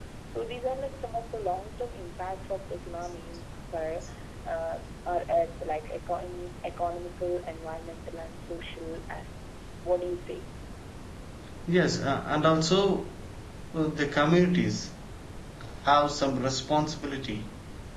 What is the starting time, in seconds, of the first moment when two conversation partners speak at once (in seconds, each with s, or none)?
none